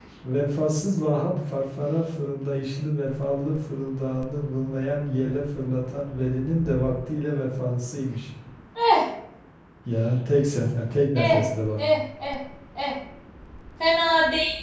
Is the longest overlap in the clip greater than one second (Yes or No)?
No